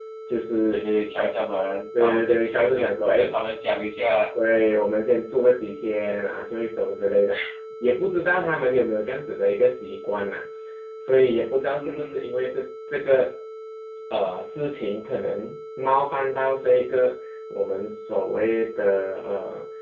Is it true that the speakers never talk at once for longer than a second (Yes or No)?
No